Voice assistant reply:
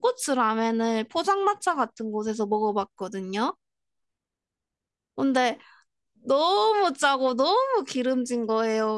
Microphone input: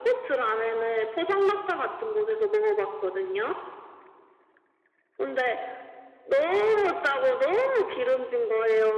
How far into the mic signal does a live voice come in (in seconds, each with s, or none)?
none